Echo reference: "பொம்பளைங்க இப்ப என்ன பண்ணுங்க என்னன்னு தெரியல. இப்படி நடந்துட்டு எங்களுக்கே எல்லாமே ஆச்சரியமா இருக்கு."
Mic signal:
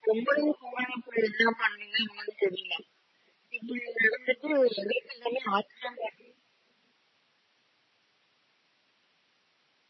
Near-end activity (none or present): none